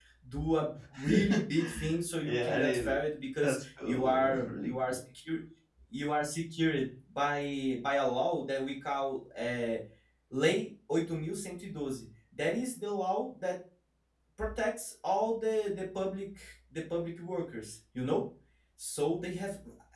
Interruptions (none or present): present